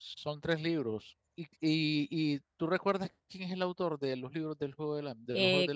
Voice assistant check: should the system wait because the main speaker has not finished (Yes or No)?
No